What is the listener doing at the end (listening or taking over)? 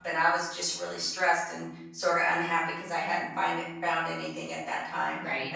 listening